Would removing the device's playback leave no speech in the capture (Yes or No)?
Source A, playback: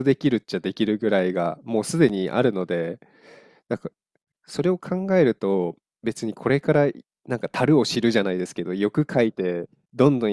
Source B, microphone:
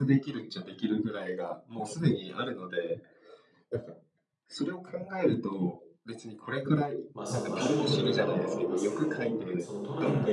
No